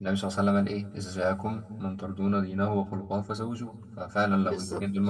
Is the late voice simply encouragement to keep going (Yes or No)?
Yes